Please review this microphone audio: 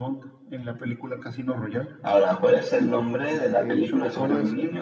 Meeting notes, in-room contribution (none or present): present